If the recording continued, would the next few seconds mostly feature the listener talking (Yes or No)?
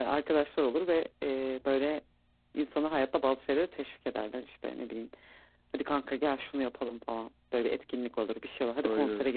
No